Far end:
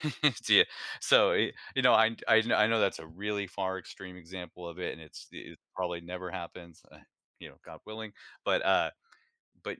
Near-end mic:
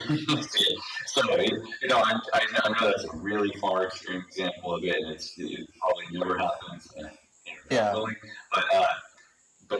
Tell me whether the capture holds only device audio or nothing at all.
No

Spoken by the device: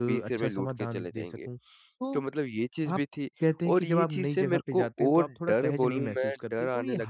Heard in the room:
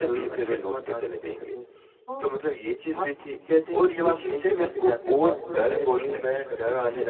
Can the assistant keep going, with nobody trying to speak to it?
Yes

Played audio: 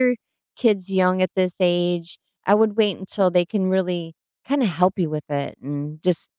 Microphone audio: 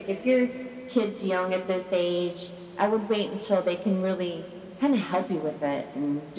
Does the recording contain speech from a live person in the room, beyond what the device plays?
No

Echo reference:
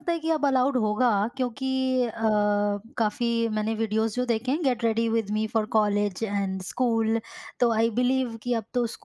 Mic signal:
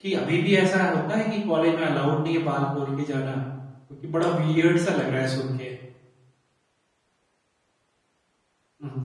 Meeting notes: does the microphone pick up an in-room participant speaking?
Yes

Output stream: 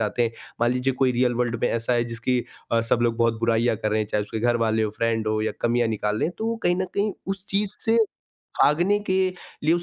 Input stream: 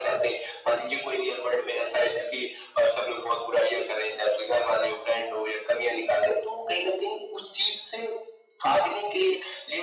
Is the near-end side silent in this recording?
Yes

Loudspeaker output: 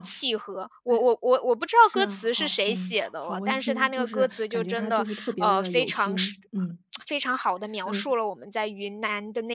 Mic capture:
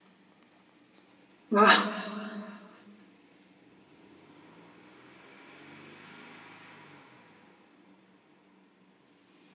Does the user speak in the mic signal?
Yes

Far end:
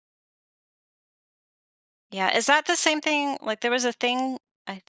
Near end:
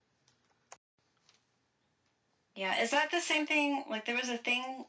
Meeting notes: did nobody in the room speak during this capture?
Yes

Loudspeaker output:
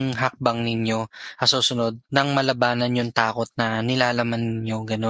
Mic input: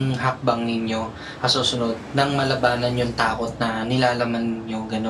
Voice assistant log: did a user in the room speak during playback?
No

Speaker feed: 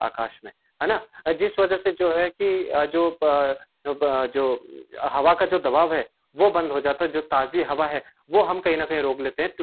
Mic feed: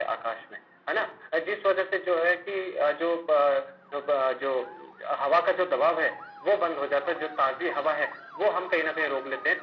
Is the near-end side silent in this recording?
Yes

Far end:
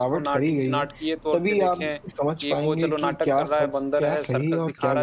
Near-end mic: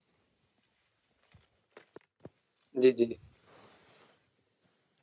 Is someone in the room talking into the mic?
Yes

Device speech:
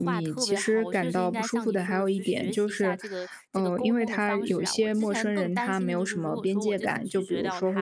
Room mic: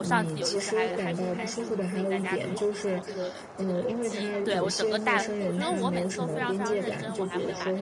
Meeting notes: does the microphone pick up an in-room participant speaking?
Yes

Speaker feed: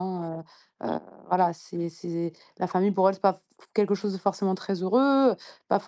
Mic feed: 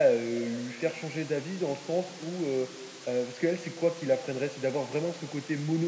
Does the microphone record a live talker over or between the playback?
Yes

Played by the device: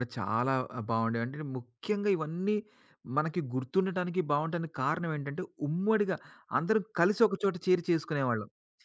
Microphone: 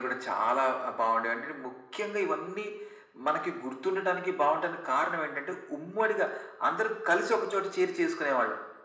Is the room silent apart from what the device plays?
Yes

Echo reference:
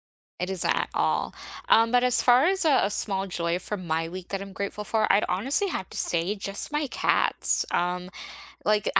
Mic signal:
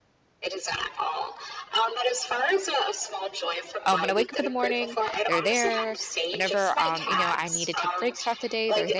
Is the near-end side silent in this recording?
No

